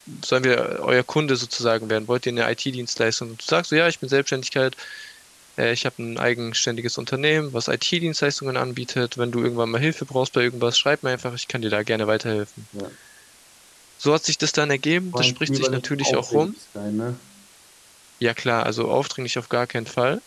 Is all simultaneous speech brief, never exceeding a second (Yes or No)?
No